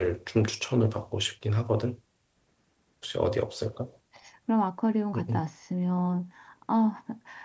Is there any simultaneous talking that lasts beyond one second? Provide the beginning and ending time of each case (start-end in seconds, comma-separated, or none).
none